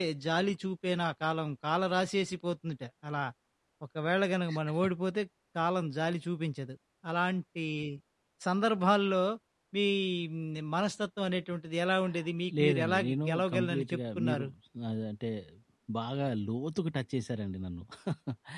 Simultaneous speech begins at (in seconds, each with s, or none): 12.5 s